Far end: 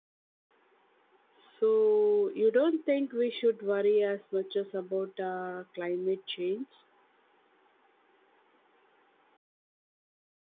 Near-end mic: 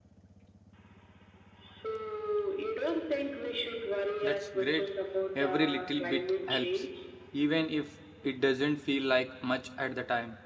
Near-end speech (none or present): present